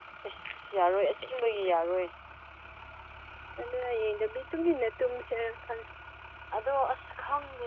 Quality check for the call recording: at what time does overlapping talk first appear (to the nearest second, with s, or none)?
none